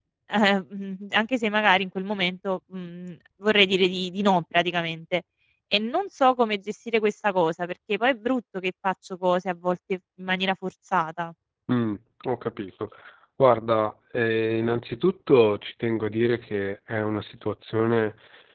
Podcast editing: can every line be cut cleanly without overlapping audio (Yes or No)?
Yes